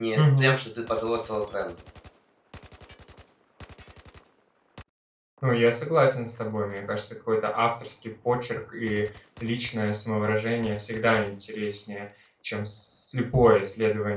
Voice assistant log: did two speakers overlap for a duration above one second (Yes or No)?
No